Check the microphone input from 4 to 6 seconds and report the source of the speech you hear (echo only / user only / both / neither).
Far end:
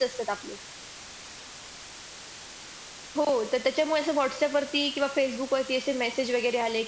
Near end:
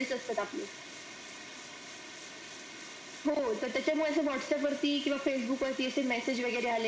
echo only